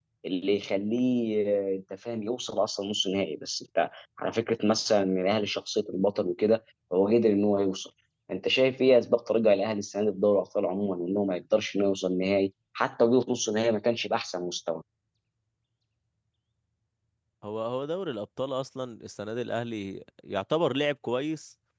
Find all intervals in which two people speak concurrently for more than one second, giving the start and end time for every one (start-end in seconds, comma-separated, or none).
none